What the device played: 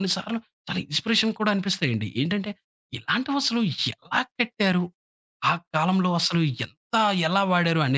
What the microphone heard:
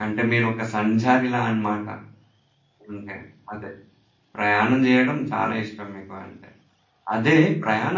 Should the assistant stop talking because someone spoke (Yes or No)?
Yes